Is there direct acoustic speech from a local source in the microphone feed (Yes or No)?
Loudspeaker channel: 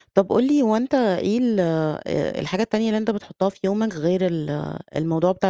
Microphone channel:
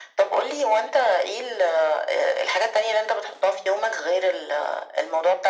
No